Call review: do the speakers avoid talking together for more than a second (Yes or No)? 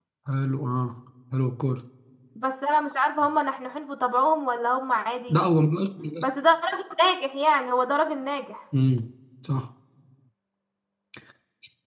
Yes